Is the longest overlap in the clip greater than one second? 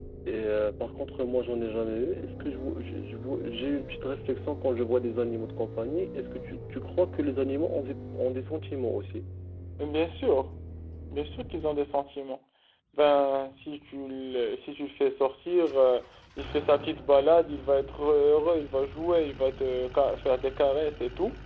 No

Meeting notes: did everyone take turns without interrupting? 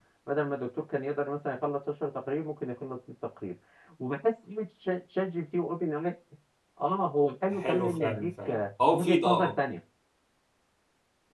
No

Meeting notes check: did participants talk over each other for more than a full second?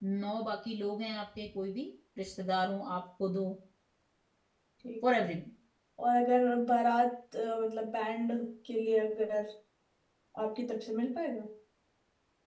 No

